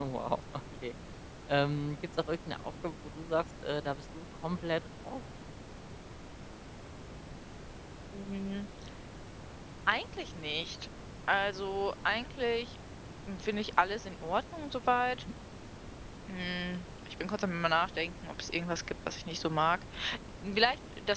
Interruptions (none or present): none